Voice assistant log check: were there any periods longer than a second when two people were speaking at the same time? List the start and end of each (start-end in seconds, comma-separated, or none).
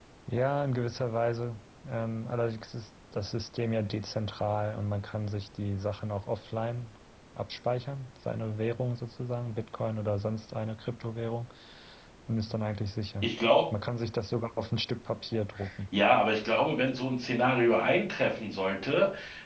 none